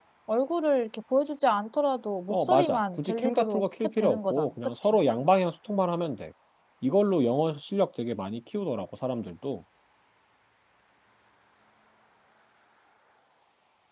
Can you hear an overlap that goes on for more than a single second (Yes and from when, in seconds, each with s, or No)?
Yes, from 2.3 s